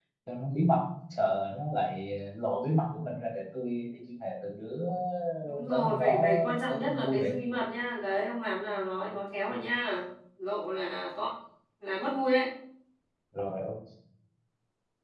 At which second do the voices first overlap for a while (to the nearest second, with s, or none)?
6 s